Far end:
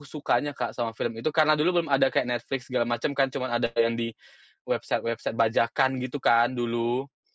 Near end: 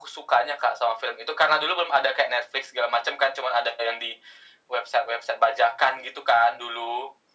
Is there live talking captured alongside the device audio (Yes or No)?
No